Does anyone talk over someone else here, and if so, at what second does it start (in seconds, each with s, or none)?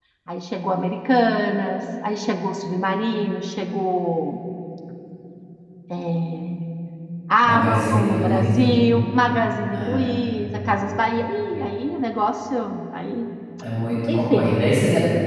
7.5 s